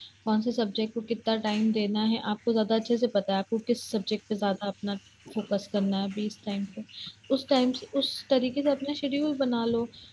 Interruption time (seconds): none

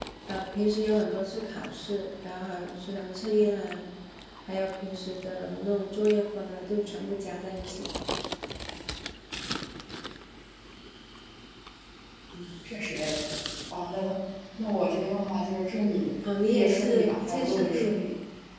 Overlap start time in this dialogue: 16 s

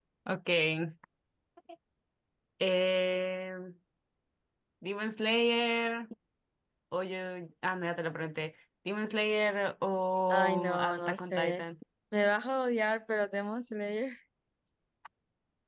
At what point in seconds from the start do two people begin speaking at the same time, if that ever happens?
10 s

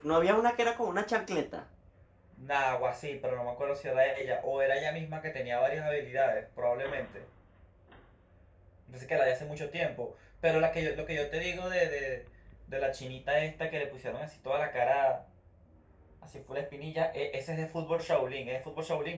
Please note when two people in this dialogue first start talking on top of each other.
none

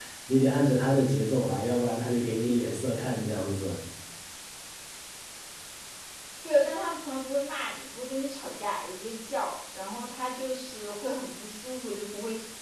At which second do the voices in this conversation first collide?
none

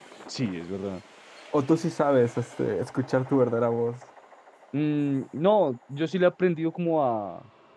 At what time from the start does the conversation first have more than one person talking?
none

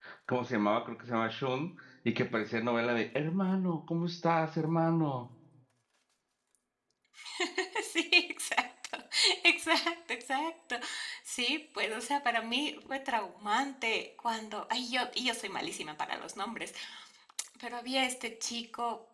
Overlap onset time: none

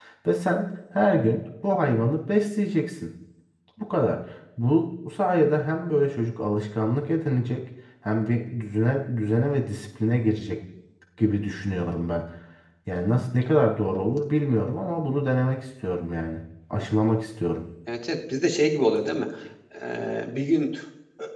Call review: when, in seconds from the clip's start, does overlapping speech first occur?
none

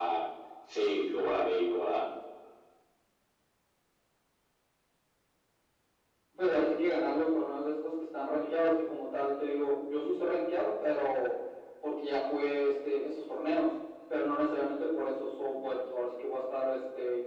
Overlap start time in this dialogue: none

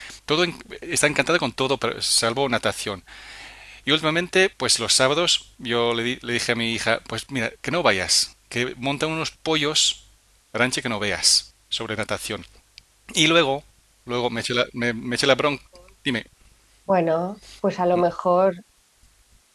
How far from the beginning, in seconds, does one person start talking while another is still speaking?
none

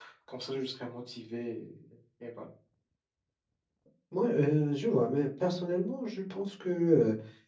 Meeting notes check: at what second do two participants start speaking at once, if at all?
none

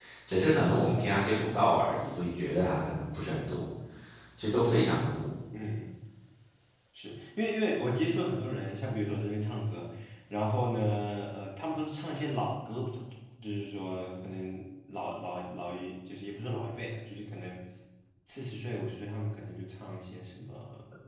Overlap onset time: none

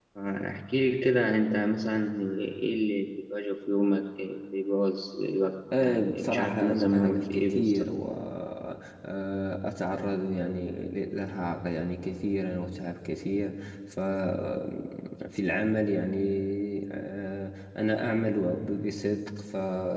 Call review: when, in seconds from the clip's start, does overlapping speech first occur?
6 s

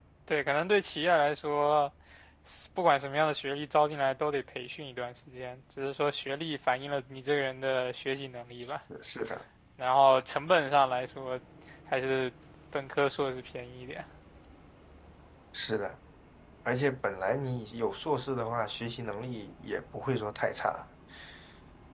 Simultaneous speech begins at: none

